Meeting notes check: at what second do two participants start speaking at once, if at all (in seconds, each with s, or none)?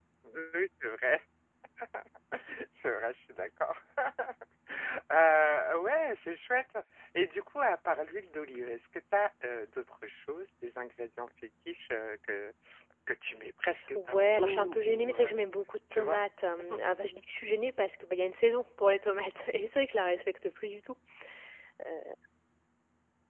13.9 s